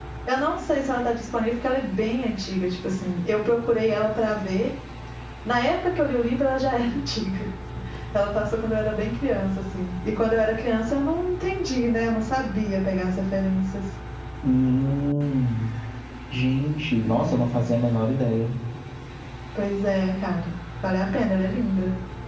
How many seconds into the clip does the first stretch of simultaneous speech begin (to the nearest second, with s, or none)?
none